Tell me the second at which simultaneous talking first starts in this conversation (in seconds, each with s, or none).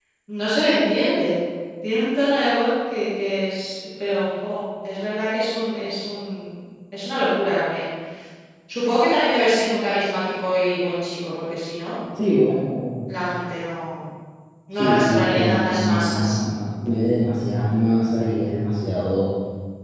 14.7 s